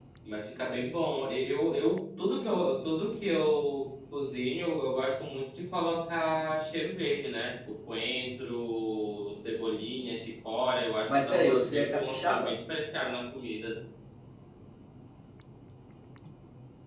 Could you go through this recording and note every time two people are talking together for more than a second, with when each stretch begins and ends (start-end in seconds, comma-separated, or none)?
11.1-12.5